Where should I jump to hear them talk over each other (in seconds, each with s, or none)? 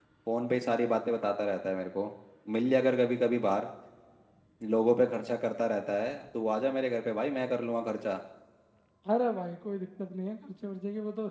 none